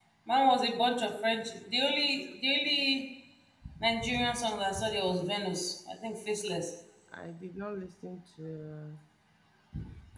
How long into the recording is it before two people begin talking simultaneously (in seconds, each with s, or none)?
none